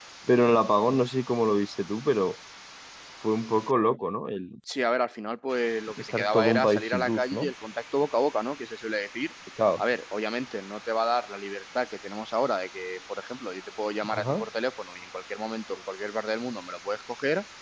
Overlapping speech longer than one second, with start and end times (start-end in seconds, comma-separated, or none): 6.0-7.5